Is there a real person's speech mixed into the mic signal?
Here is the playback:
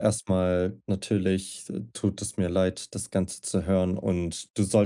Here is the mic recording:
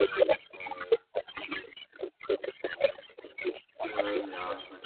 Yes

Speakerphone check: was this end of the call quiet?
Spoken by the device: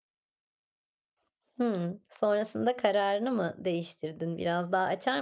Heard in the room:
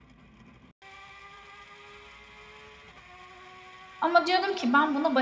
No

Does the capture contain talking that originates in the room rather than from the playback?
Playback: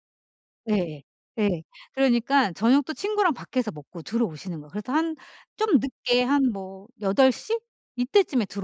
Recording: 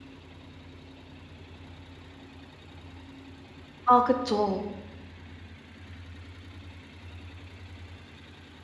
Yes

